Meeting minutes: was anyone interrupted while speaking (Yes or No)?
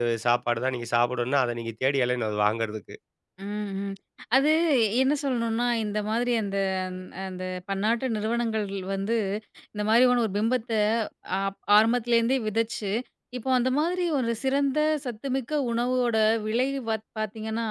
No